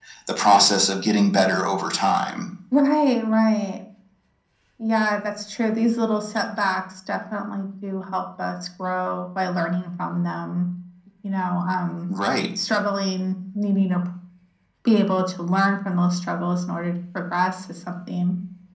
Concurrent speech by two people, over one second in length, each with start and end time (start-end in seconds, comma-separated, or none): none